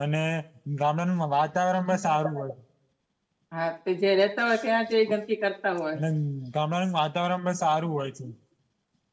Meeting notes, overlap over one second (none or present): none